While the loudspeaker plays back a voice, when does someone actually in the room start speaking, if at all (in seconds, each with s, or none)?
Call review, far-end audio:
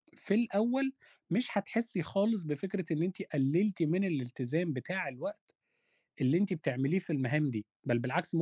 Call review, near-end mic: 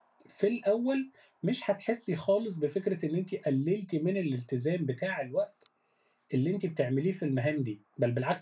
none